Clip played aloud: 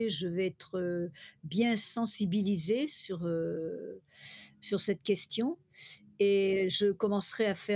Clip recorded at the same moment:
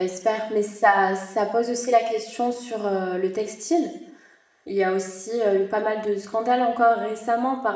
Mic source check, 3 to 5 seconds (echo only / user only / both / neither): user only